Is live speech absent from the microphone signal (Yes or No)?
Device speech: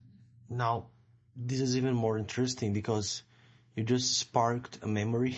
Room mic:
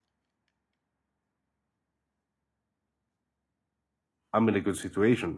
No